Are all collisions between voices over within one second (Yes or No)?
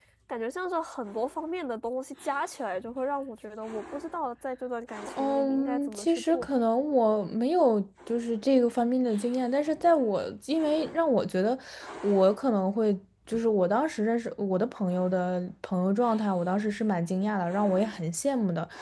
No